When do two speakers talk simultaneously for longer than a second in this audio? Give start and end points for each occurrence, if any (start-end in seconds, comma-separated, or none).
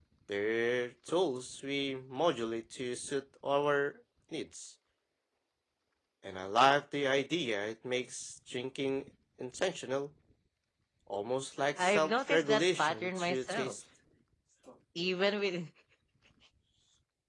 11.8-13.8